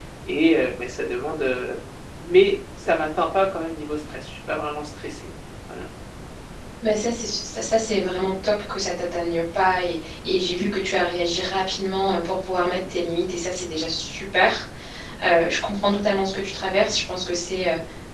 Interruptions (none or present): none